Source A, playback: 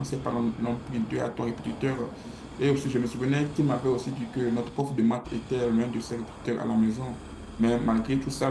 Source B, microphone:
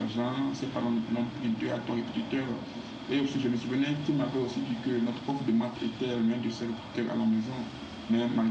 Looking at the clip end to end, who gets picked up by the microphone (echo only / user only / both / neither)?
echo only